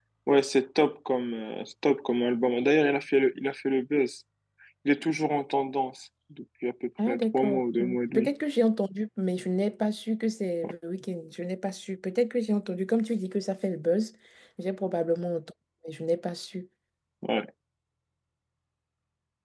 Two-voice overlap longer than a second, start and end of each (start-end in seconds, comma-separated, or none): 7.1-8.3